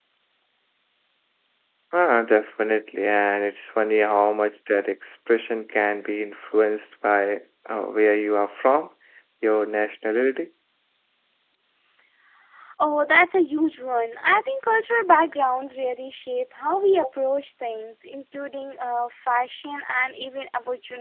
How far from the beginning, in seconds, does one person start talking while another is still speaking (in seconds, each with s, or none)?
none